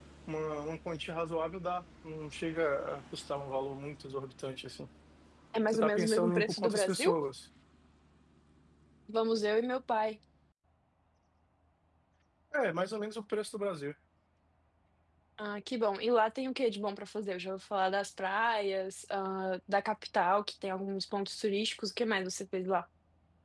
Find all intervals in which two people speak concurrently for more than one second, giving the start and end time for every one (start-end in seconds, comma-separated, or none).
5.7-7.1